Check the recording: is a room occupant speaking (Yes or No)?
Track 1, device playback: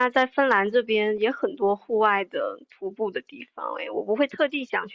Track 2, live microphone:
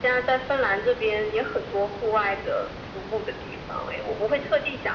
No